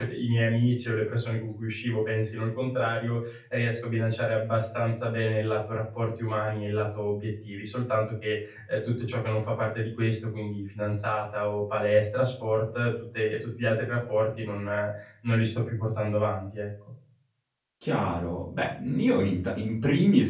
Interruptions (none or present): none